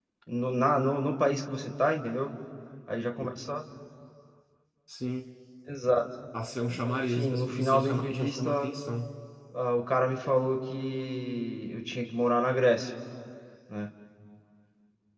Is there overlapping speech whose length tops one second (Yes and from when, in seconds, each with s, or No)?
Yes, from 6.7 s